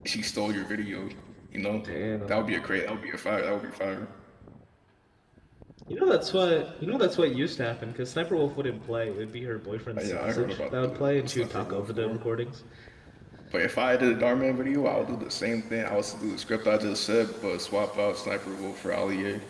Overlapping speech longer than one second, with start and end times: 10.0-12.2

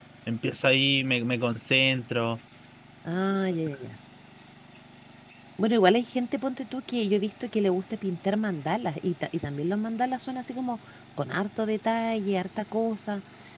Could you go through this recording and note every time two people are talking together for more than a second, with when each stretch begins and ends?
none

